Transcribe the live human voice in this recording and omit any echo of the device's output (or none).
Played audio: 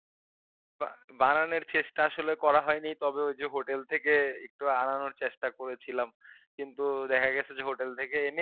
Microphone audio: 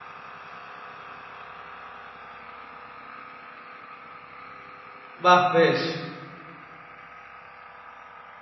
বাহ! বেশ,